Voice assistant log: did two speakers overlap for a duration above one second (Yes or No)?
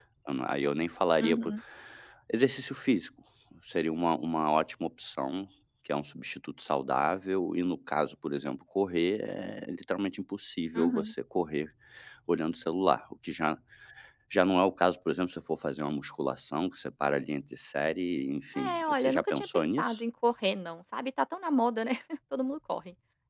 Yes